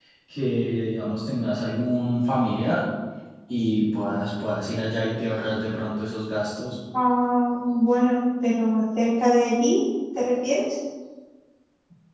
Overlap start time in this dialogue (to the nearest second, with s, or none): none